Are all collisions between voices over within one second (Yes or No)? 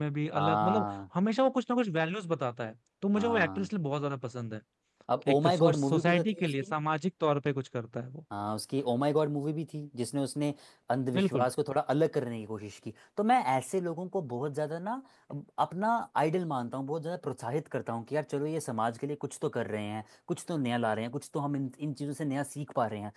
No